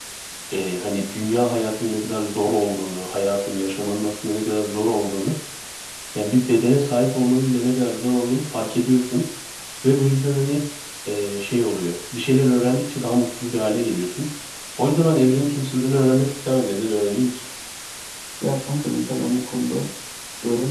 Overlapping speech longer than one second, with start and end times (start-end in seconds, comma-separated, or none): none